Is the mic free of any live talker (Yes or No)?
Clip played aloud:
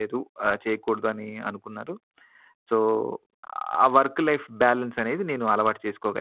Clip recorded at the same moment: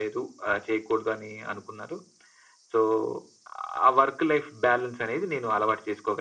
Yes